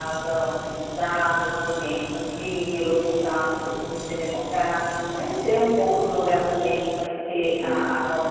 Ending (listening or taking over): listening